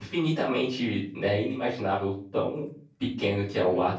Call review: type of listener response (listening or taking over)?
listening